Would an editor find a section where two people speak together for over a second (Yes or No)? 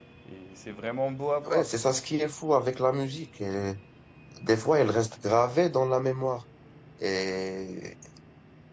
No